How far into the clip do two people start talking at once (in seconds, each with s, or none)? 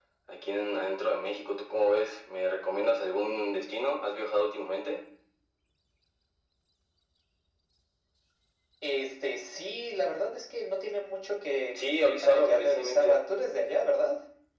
11.7 s